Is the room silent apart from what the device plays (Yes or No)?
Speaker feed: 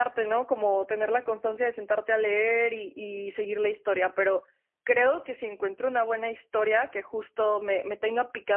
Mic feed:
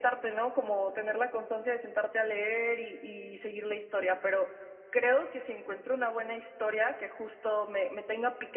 Yes